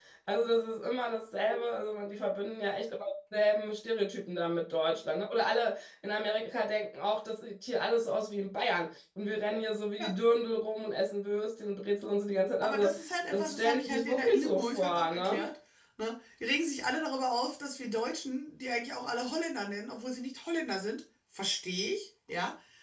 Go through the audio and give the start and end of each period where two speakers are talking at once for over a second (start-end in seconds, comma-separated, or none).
13.3-15.5